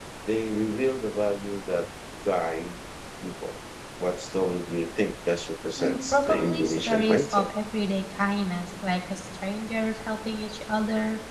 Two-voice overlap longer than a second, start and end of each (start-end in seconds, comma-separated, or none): 5.8-7.5